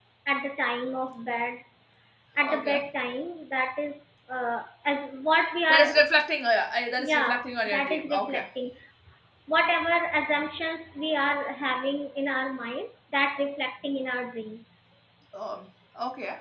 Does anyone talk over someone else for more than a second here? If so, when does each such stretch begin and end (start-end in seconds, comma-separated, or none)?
7.0-8.5